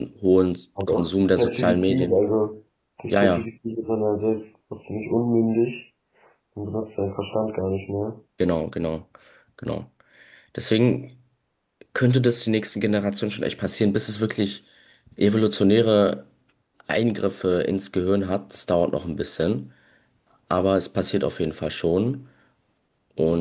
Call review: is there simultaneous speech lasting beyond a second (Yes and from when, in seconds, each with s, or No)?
Yes, from 0.9 s